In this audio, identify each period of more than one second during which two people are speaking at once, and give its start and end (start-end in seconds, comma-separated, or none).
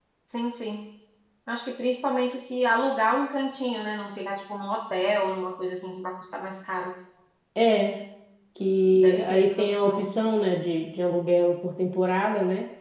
8.9-10.2